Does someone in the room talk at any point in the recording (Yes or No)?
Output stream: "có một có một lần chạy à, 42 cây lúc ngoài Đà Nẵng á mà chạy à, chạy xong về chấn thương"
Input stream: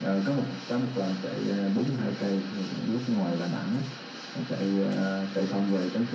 No